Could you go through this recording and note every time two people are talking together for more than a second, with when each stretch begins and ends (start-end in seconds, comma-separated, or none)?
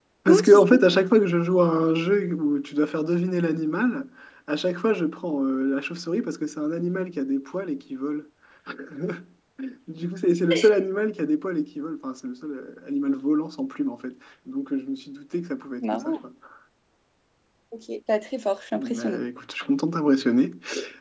none